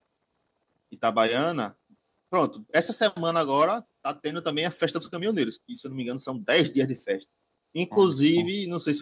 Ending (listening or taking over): listening